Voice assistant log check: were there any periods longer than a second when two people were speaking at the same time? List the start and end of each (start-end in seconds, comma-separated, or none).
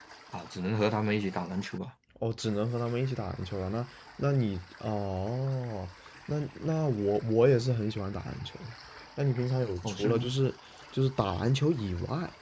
none